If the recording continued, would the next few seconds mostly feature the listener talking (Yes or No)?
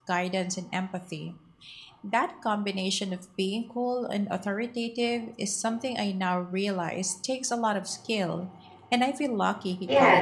Yes